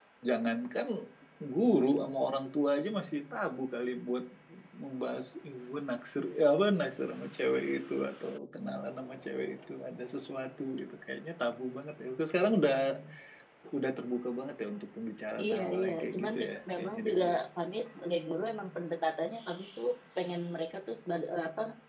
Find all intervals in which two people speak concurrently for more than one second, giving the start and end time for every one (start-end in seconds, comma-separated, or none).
15.4-17.4